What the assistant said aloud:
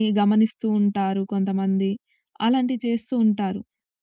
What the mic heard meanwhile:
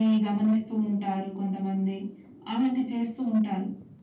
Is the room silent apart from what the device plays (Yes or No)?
Yes